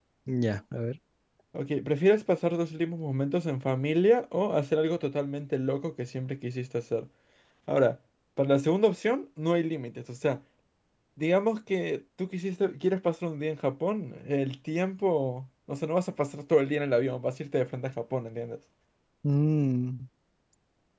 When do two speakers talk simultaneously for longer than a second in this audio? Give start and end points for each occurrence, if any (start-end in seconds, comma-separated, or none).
none